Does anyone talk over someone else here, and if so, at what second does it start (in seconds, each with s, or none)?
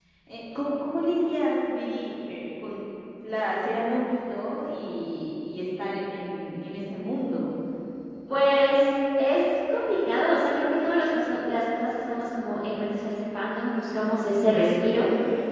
none